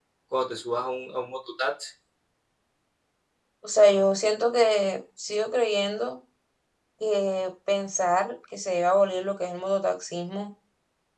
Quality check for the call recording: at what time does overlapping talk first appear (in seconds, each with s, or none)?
none